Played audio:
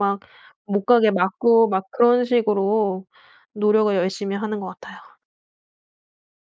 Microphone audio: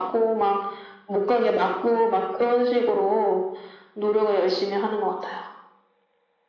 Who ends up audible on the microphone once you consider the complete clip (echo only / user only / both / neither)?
echo only